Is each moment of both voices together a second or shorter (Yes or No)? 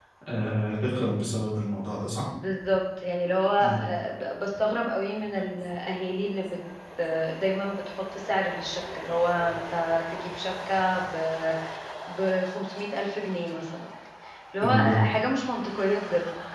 Yes